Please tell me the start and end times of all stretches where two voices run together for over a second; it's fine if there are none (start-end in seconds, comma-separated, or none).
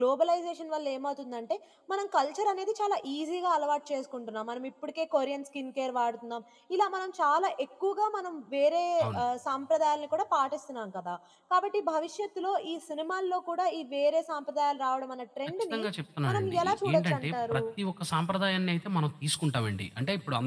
16.3-17.6